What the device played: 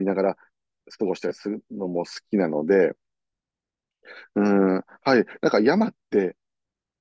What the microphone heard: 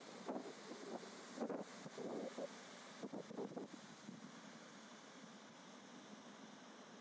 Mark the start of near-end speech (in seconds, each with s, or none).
none